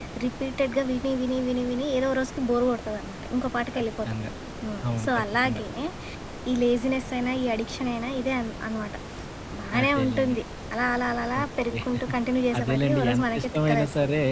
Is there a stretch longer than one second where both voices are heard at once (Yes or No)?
Yes